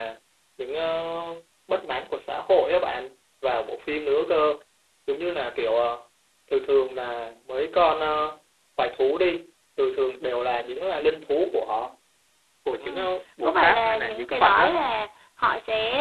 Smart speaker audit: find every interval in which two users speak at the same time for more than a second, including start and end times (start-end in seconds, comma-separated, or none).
13.4-14.8